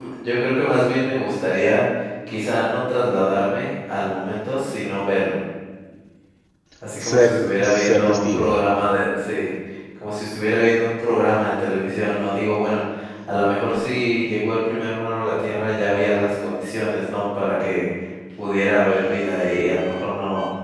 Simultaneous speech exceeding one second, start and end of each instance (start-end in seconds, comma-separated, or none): 7.0-8.6